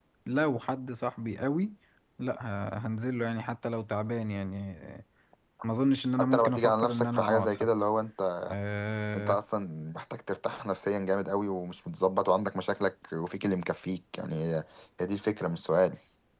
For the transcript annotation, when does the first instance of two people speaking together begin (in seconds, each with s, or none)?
6.2 s